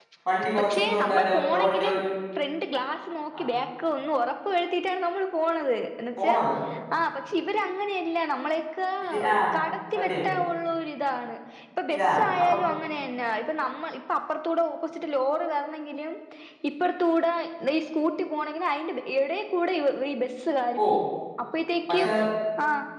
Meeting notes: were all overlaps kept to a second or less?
No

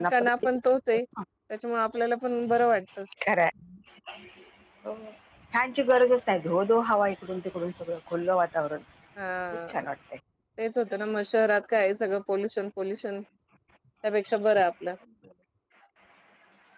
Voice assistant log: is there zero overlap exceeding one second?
Yes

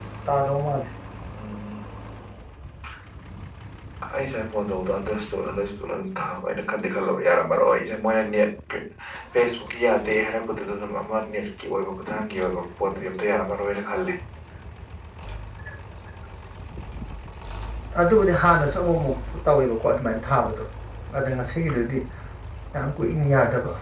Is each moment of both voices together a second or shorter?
Yes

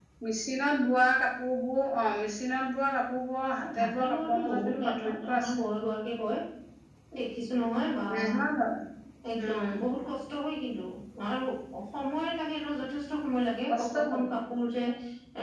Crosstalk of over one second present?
Yes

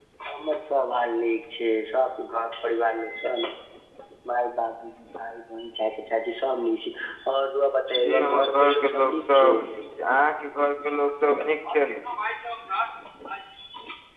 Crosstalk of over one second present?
Yes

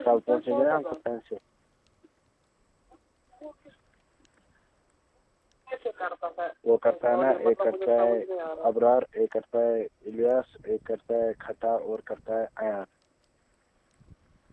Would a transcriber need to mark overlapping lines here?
Yes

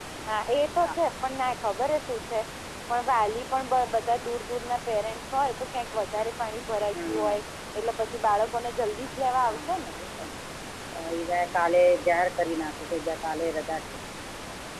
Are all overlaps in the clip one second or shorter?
Yes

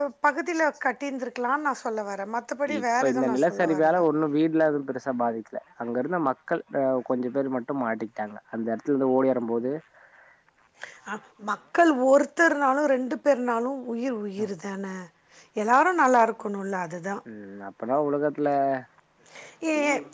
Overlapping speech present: Yes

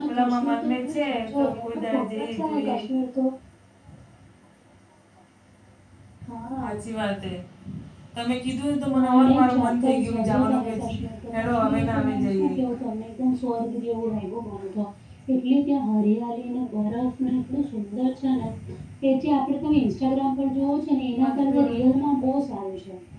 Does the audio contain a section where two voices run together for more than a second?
Yes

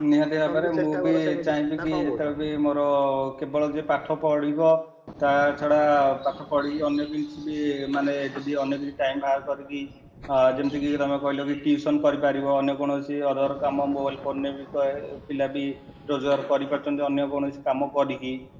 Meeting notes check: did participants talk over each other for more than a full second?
Yes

